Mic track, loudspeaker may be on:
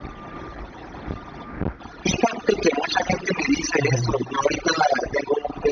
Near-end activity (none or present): present